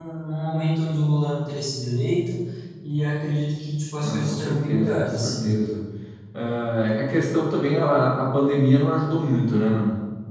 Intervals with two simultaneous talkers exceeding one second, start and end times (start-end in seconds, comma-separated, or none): 4.0-5.6